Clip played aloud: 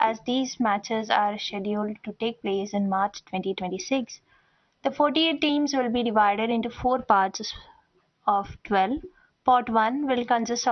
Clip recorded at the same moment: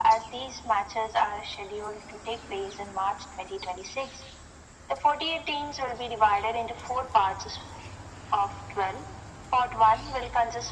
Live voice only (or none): none